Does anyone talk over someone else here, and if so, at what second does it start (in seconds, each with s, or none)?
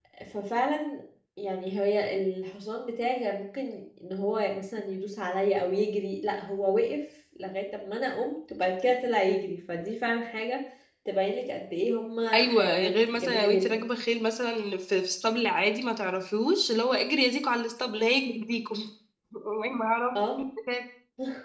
12.3 s